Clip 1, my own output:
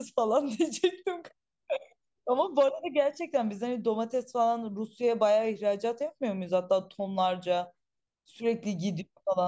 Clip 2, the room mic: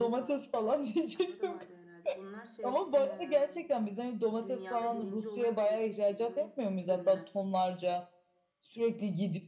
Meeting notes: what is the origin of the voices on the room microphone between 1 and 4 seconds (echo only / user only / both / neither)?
both